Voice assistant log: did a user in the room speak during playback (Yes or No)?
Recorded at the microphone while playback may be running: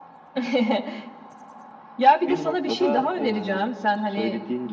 No